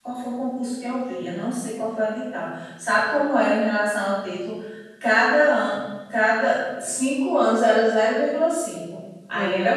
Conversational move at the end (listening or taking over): taking over